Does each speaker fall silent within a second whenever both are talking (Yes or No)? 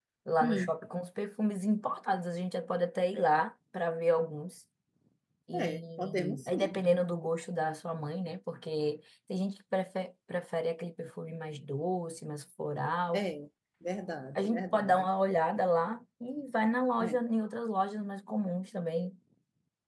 No